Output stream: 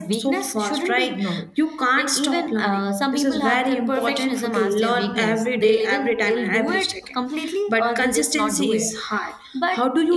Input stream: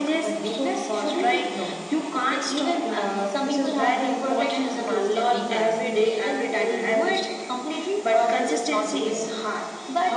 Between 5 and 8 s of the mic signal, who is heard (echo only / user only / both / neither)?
echo only